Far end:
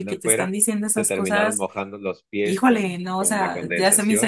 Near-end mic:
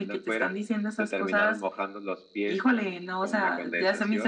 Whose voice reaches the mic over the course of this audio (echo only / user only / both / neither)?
echo only